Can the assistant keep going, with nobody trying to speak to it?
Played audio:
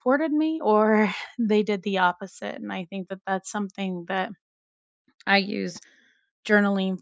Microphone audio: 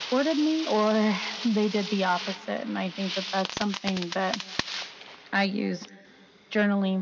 Yes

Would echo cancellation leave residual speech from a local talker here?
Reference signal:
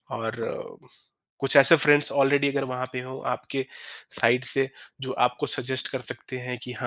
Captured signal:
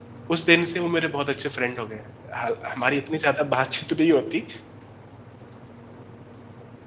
Yes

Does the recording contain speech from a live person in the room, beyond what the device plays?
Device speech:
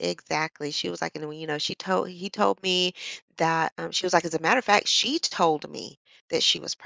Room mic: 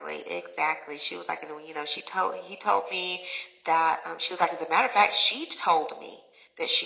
No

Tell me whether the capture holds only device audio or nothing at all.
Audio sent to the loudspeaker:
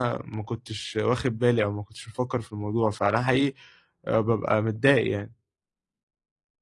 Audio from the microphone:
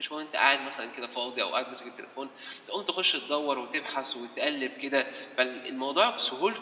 No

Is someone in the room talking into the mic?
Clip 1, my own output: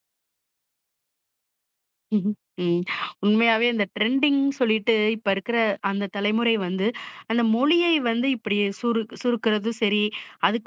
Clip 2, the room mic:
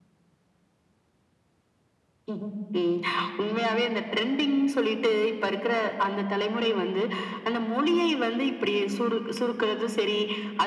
No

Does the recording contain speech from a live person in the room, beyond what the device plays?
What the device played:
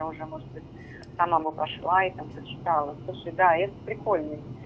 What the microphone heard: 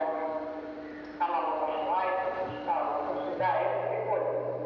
No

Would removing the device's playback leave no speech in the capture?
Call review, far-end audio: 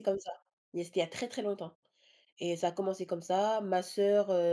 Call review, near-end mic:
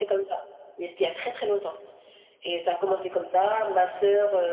Yes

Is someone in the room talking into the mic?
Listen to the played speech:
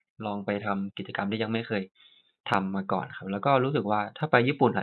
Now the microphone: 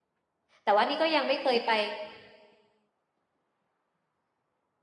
Yes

